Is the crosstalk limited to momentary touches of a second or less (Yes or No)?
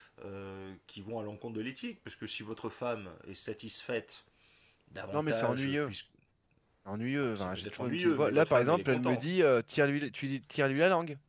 No